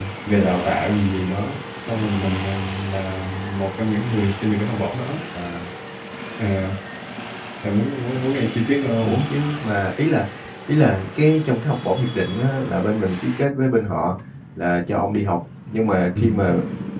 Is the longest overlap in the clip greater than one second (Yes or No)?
No